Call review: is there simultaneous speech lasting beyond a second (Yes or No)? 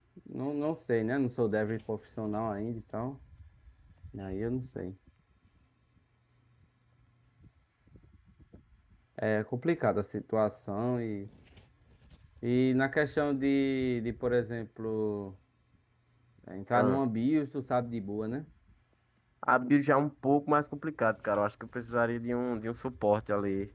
No